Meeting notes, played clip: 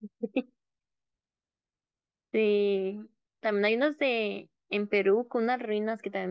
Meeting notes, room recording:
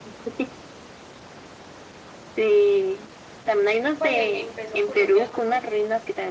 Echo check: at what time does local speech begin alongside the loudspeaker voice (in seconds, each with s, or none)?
4.0 s